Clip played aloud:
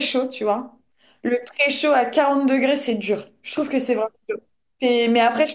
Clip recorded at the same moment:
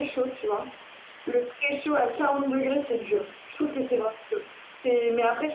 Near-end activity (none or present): none